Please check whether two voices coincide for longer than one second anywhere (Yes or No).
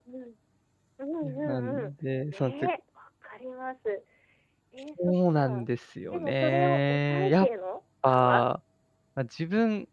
Yes